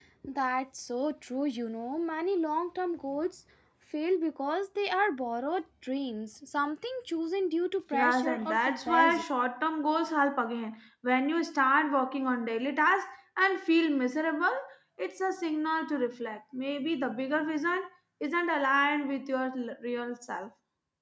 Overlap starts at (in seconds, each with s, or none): 7.9 s